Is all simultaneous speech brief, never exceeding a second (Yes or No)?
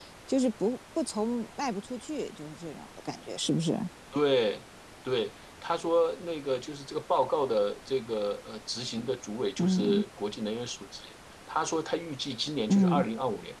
Yes